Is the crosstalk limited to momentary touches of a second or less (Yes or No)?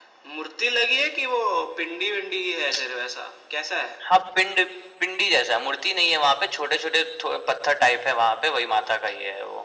Yes